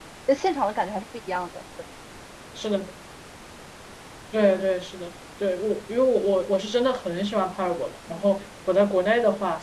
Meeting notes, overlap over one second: none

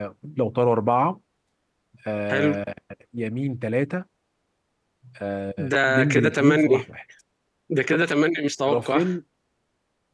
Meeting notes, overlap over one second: present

